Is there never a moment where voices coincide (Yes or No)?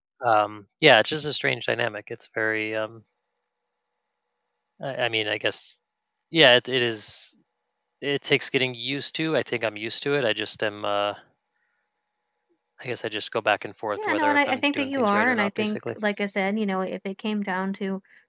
No